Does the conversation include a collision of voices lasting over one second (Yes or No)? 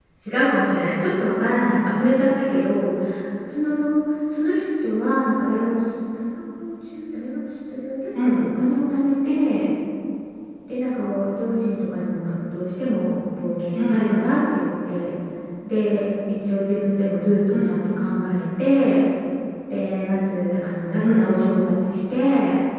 No